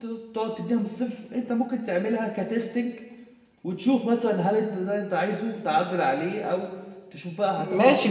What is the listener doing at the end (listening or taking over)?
taking over